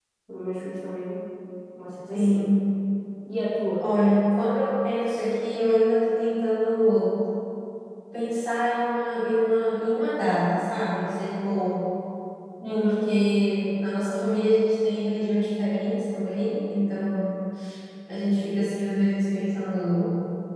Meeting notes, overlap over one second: none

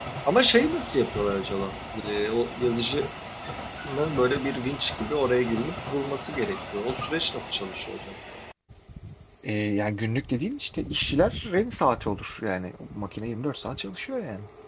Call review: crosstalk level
none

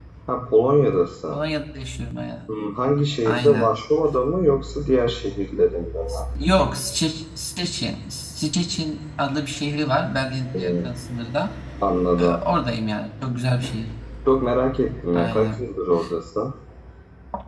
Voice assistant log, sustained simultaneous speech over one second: none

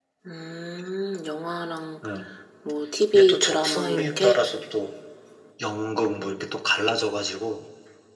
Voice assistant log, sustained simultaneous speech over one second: present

